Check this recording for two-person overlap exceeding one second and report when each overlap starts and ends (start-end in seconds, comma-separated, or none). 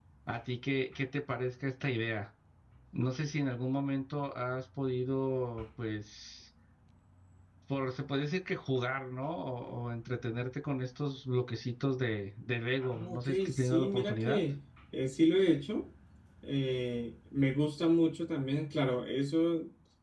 12.8-14.4